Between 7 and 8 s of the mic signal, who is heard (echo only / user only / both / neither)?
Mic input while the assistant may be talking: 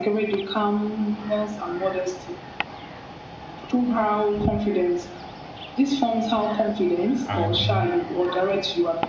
both